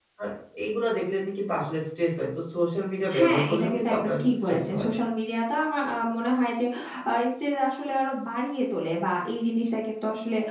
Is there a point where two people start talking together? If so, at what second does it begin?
3 s

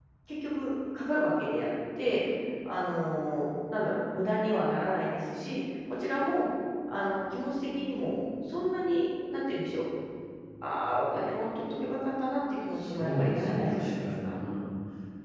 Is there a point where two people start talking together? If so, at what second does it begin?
13 s

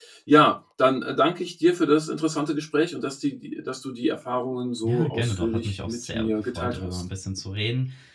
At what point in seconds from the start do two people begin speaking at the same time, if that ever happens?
5 s

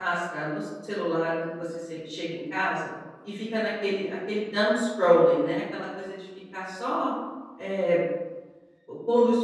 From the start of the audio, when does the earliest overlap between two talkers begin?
none

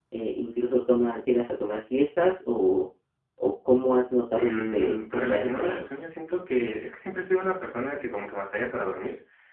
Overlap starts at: 4 s

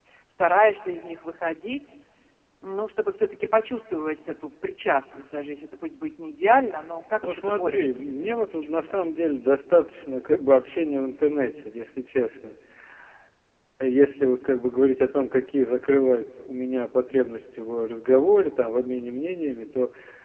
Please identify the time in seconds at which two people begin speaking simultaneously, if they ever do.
7 s

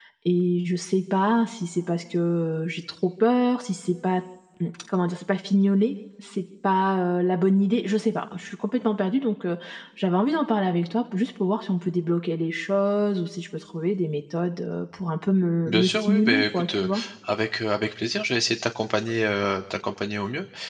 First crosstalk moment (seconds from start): 16 s

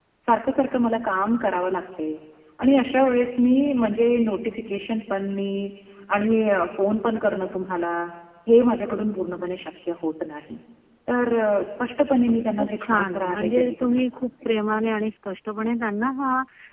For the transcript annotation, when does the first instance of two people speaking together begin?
12 s

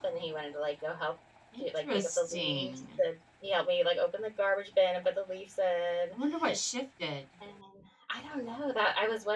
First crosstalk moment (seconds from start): 2 s

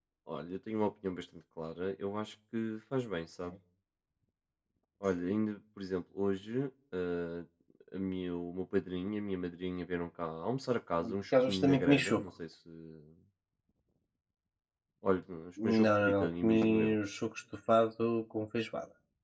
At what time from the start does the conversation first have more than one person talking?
11 s

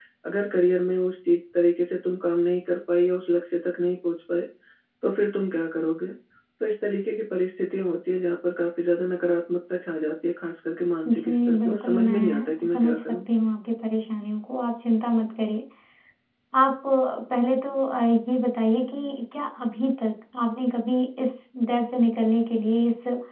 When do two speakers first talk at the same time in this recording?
11 s

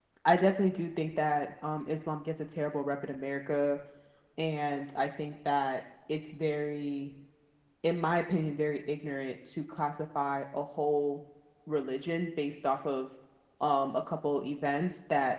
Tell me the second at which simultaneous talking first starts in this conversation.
none

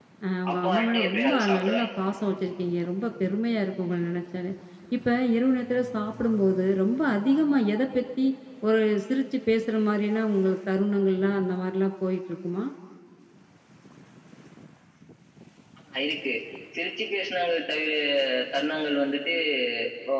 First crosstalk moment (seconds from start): 1 s

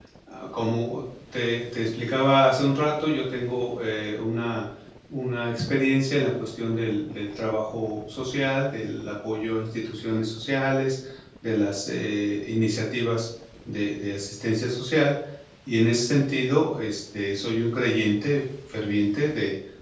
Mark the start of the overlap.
none

